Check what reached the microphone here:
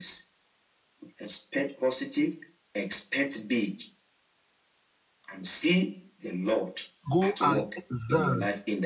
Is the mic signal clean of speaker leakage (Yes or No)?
No